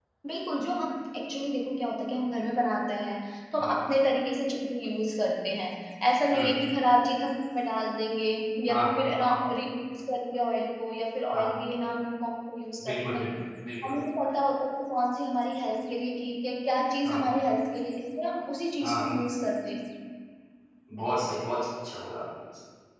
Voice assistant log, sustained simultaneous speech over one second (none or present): none